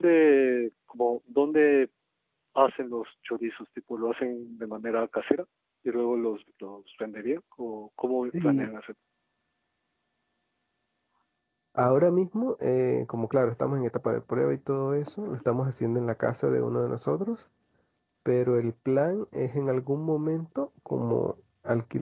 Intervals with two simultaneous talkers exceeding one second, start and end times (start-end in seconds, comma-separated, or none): none